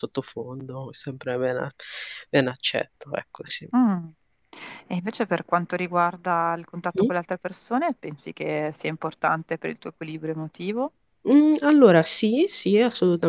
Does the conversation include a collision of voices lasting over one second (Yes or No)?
No